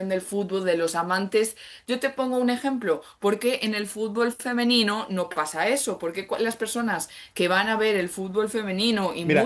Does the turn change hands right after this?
Yes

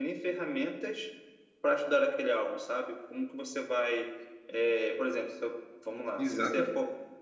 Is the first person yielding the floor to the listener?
Yes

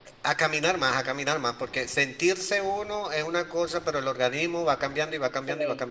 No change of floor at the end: No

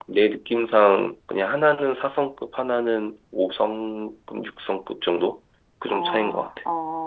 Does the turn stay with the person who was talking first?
No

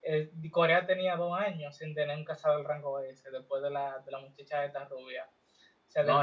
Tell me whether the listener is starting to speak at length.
Yes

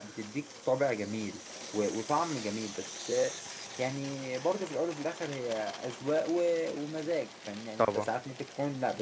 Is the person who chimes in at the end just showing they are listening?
Yes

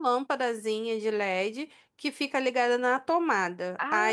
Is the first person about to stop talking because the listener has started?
No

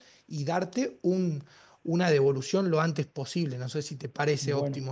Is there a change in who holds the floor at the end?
Yes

